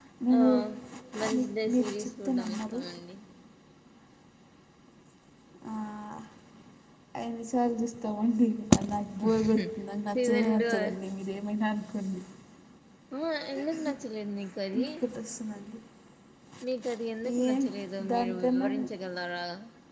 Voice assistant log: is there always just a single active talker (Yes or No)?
No